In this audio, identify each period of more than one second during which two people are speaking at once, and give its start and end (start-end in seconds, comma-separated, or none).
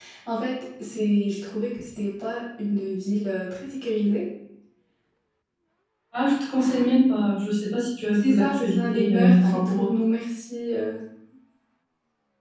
8.1-9.8